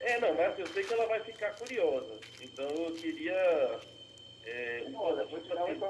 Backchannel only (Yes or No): No